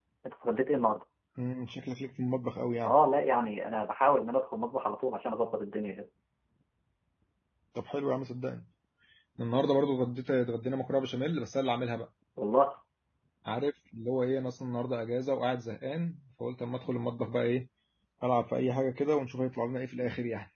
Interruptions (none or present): none